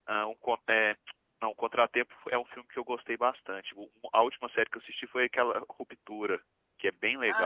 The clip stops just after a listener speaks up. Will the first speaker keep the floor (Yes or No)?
No